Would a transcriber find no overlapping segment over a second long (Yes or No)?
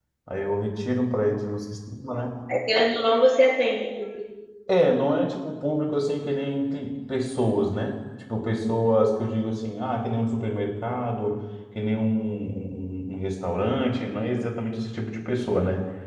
Yes